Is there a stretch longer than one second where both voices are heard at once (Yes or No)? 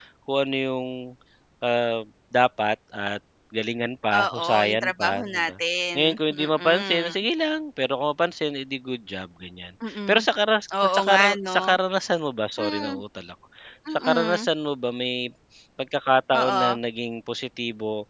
Yes